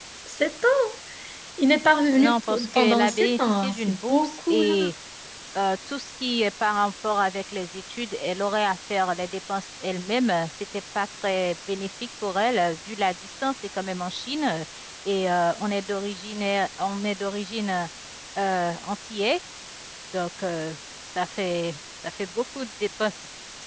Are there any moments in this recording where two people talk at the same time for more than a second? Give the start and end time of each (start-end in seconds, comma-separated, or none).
2.2-4.8